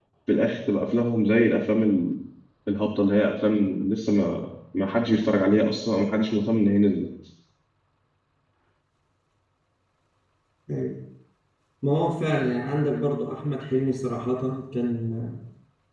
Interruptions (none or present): none